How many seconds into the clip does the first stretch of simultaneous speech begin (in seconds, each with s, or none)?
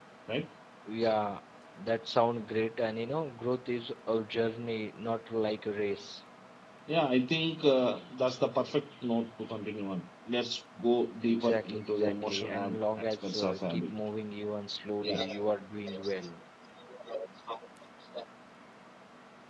11.3 s